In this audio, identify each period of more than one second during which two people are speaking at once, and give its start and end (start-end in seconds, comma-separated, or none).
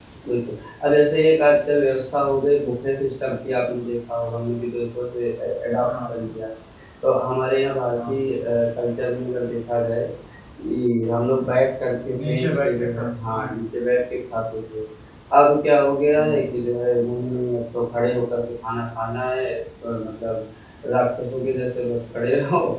12.2-13.5